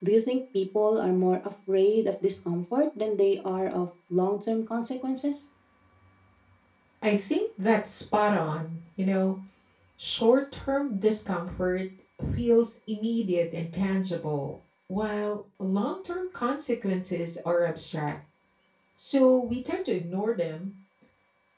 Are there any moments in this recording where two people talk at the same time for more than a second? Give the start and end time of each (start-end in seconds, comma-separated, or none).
none